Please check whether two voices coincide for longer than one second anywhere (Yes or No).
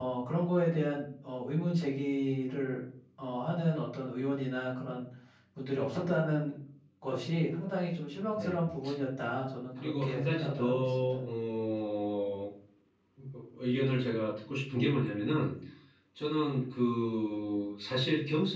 Yes